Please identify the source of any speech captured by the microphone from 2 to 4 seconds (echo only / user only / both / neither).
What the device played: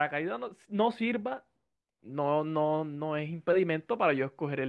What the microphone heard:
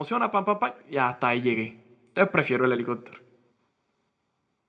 user only